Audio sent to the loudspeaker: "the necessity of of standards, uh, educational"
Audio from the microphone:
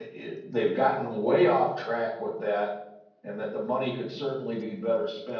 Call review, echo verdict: none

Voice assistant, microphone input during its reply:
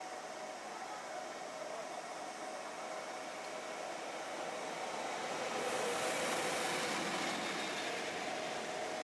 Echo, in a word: none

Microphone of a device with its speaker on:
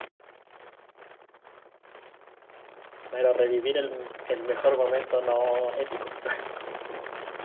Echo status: none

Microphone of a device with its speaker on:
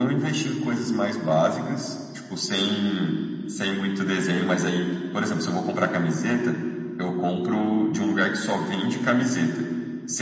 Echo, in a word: present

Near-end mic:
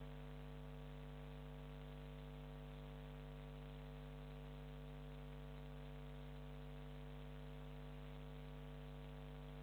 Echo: none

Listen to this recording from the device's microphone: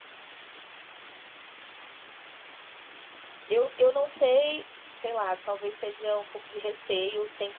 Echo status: none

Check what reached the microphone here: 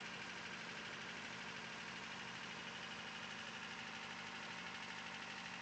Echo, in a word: none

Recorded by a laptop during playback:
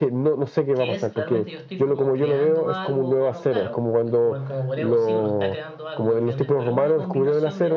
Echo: present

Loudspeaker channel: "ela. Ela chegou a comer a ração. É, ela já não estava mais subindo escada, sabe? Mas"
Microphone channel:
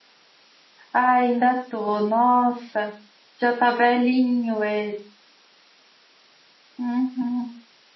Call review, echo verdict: none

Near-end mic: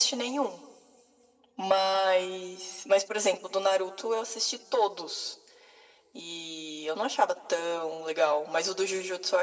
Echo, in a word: present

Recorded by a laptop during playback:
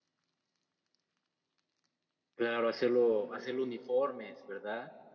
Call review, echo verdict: none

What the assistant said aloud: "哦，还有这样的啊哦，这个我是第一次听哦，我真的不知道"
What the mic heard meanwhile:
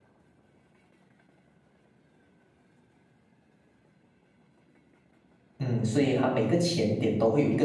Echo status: none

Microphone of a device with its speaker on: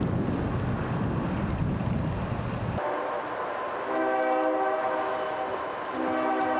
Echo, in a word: none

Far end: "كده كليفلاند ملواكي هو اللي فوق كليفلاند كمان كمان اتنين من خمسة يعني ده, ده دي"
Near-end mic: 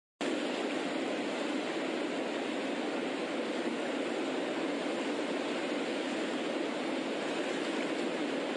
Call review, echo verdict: none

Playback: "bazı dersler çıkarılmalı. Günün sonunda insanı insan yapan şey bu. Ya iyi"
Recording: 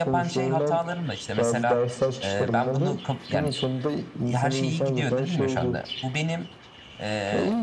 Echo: present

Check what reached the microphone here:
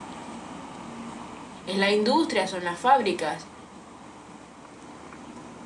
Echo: none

